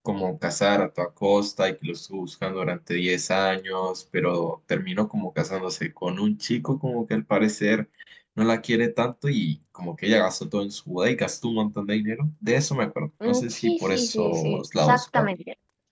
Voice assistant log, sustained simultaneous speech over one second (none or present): present